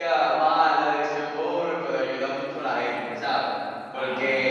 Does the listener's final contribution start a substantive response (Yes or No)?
No